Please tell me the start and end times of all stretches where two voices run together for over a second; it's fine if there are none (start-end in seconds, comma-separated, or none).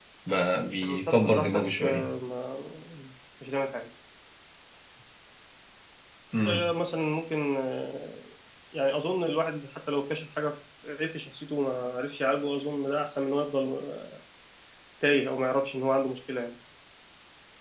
0.8-2.1